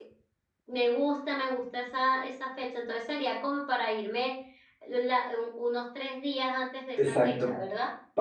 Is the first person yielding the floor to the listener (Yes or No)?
Yes